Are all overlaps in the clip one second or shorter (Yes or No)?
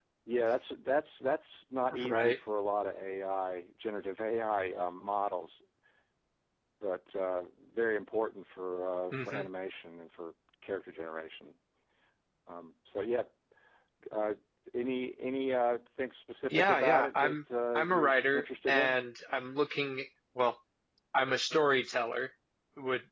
No